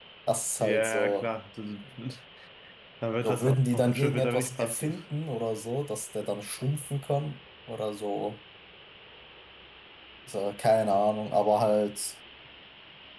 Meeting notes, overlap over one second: present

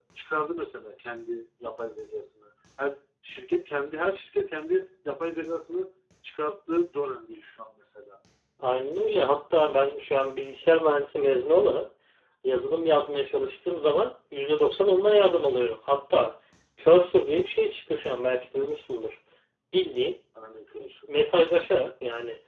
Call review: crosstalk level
none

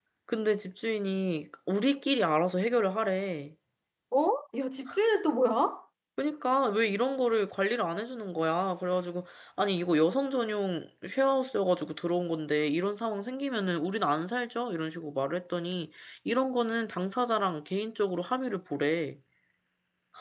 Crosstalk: none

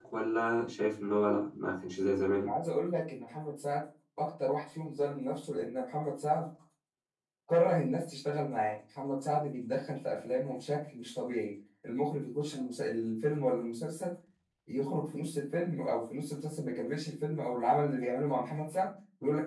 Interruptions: none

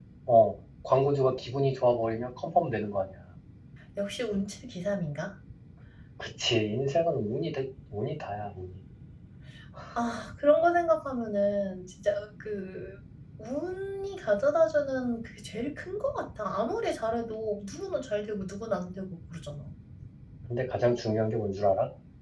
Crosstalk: none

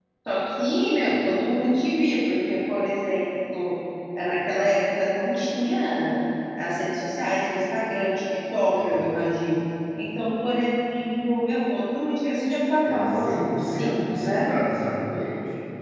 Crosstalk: present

